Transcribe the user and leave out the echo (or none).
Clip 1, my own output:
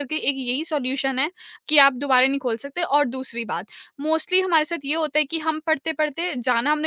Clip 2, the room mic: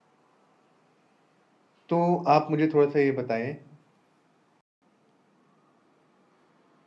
तो आप मुझे थोड़ा-सा ये बताएँ